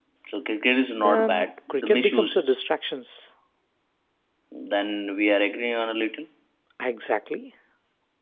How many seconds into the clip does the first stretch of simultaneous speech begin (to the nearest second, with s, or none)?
1 s